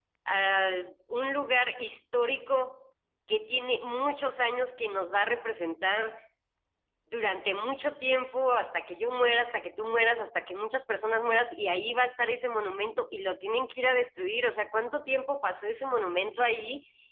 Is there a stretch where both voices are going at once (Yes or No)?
No